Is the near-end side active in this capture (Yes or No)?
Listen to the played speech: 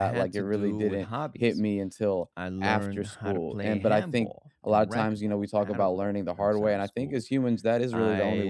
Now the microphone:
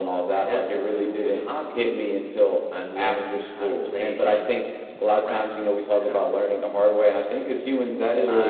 No